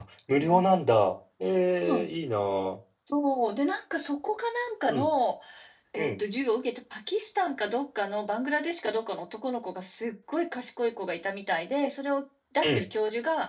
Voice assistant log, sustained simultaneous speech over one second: none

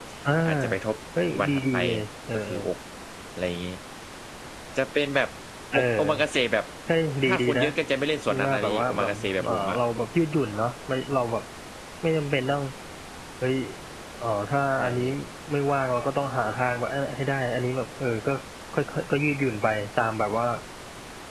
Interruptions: present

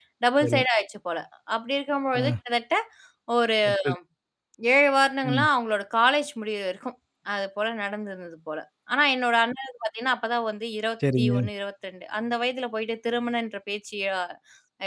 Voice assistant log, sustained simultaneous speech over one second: none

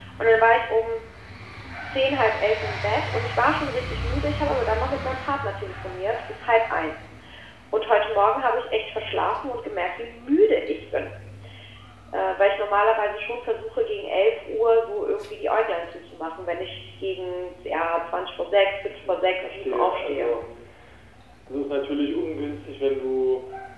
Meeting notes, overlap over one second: present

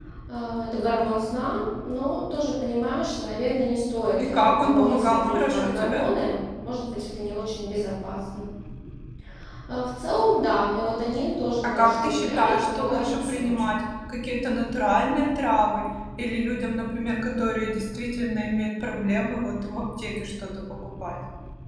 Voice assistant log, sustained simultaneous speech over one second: present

